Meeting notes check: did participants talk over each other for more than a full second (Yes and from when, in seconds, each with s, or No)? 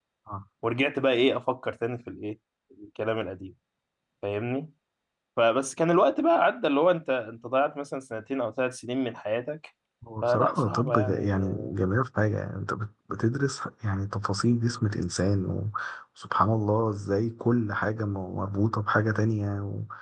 Yes, from 10.2 s